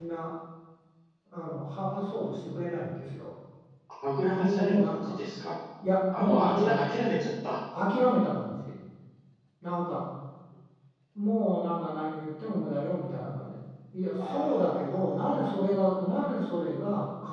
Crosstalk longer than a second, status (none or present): present